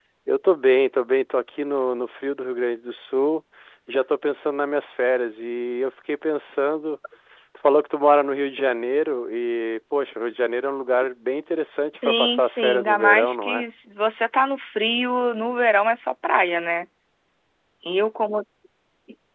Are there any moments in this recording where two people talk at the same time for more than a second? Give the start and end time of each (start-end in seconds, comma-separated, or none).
12.1-13.6